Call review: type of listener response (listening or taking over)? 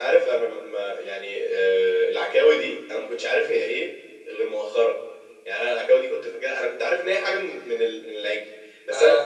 listening